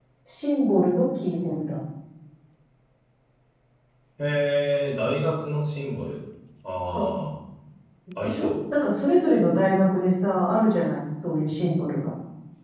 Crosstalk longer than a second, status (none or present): none